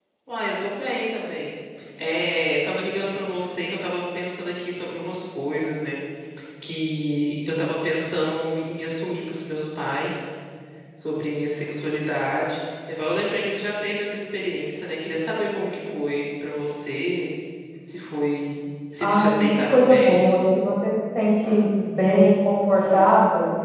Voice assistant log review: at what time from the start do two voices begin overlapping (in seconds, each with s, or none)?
19.0 s